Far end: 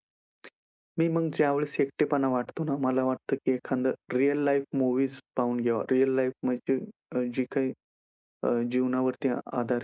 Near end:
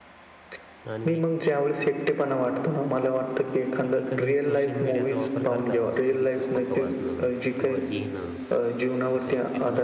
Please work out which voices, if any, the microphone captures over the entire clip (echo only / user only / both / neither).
both